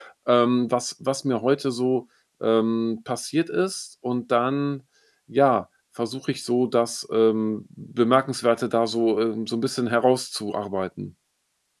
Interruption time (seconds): none

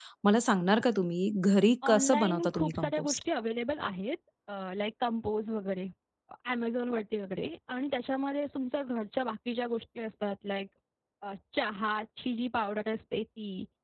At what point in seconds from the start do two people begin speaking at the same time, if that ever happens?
2 s

